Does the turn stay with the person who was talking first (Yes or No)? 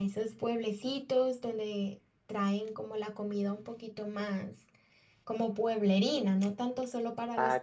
No